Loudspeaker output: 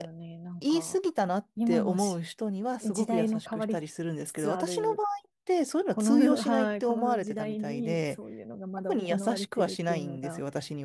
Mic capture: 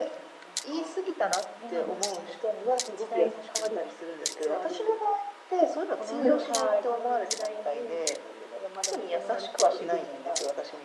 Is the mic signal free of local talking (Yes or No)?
Yes